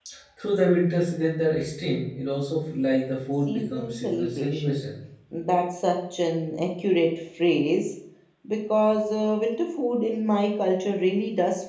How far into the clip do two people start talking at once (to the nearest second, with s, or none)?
3 s